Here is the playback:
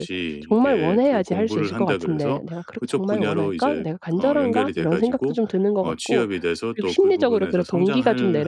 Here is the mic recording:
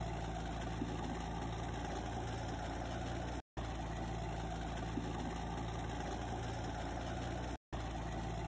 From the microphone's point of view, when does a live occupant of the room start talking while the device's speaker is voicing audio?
none

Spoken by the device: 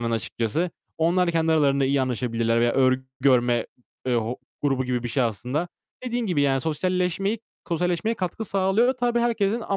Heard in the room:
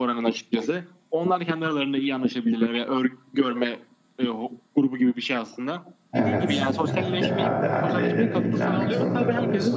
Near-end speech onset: 6 s

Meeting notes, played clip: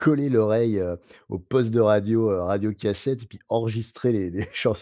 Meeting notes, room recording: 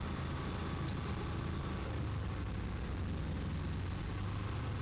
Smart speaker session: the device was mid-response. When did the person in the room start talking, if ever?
none

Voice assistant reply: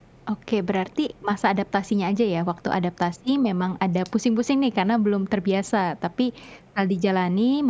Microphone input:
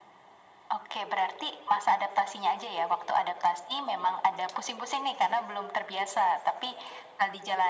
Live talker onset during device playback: none

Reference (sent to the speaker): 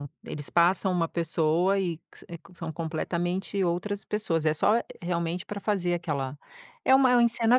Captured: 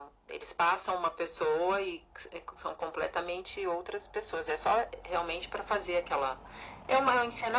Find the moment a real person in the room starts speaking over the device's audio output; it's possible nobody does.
none

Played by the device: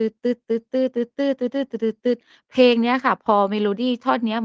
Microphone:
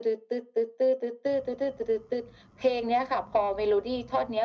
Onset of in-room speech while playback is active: none

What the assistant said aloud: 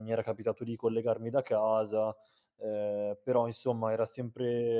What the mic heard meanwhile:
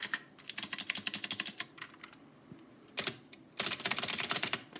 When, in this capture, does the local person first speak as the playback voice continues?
none

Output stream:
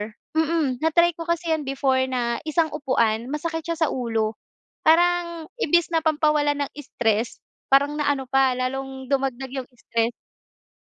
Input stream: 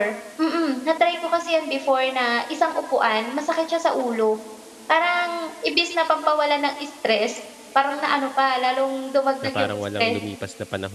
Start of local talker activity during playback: 9 s

